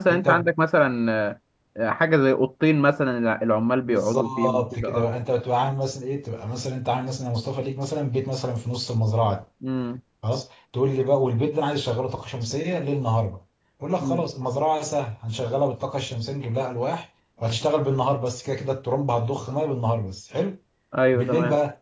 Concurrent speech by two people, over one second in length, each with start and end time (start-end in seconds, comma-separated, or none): 3.9-5.1